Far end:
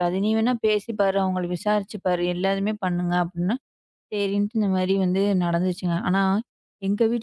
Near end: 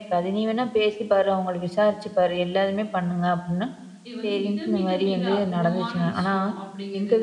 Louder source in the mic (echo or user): echo